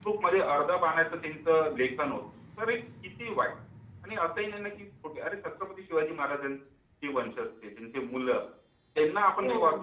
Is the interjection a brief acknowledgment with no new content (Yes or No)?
Yes